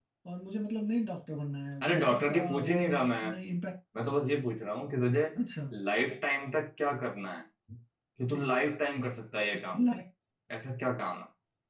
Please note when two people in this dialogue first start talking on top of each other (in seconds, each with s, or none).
1.8 s